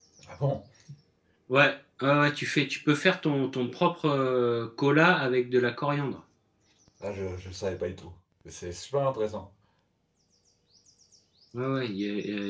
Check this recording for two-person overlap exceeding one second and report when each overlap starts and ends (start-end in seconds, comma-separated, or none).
none